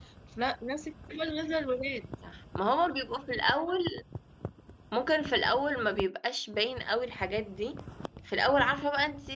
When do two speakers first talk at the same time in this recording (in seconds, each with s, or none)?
none